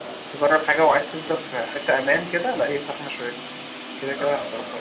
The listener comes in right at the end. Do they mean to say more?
Yes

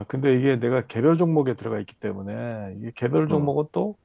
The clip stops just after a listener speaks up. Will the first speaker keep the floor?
Yes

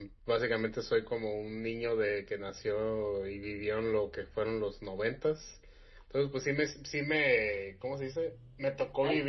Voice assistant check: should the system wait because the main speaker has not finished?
Yes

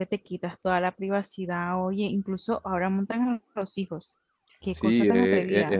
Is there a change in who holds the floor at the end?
Yes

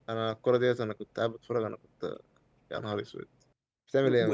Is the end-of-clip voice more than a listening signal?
Yes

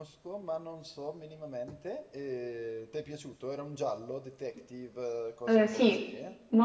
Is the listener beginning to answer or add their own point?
Yes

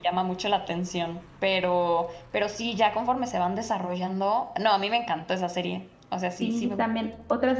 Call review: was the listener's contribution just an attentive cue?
No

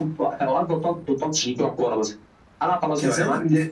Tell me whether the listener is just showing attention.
No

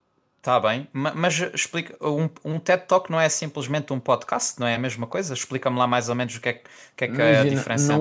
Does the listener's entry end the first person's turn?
Yes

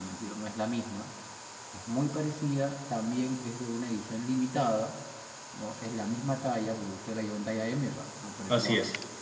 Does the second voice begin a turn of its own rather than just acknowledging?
No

